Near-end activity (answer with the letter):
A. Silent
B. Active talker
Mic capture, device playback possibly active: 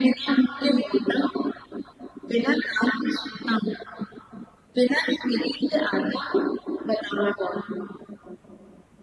A